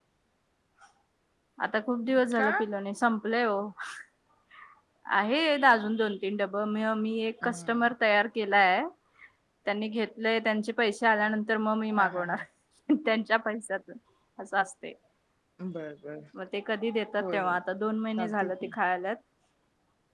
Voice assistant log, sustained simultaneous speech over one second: none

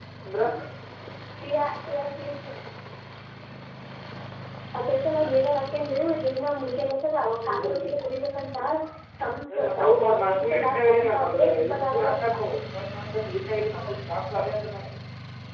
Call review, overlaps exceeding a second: present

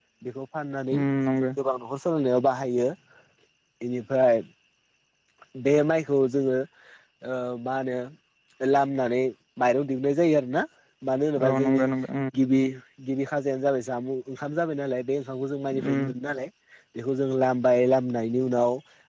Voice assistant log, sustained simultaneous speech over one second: none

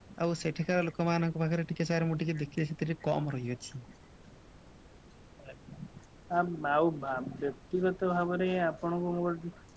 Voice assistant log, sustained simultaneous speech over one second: none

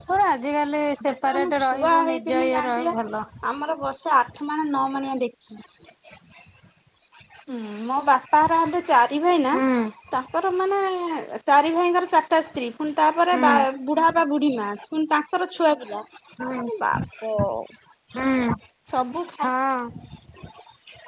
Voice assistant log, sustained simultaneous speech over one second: present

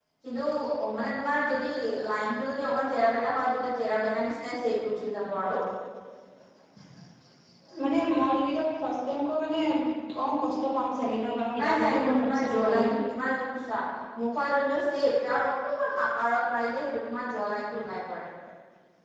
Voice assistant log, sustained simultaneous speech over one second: present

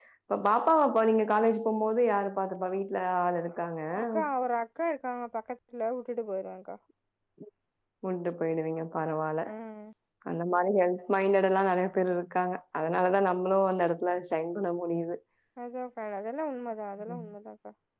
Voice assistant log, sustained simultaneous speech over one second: none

